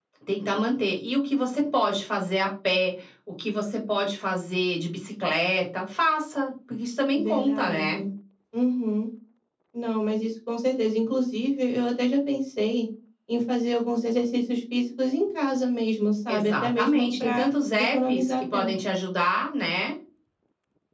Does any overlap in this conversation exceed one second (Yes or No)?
Yes